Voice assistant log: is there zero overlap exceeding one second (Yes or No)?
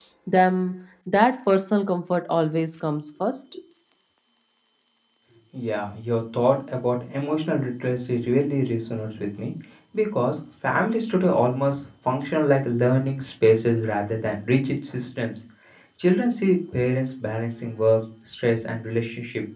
Yes